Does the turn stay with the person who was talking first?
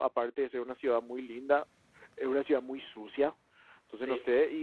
Yes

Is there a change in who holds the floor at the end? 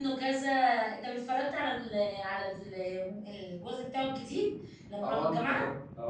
Yes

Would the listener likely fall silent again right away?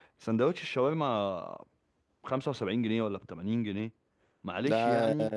Yes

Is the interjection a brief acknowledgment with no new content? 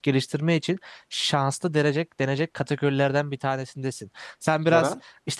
Yes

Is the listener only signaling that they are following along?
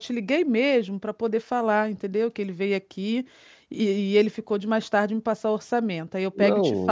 No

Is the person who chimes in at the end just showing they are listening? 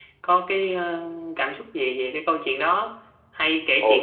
Yes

